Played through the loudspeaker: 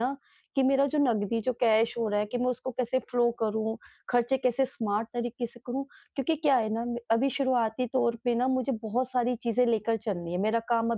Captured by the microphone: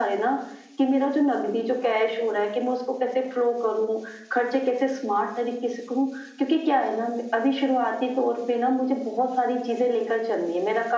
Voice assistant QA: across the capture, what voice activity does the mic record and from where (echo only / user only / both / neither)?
echo only